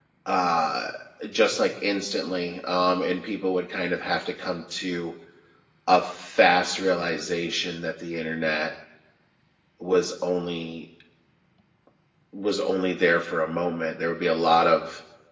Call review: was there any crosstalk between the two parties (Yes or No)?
No